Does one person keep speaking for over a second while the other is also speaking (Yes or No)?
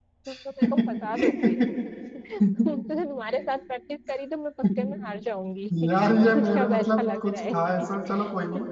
Yes